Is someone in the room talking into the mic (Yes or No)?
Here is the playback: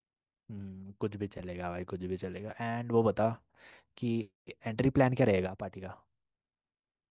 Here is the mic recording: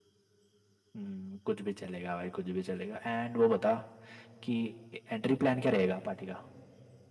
No